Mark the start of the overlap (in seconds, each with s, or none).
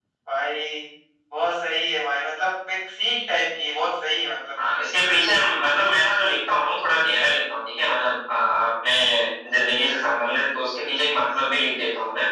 none